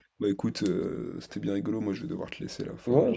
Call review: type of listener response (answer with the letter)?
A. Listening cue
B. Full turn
B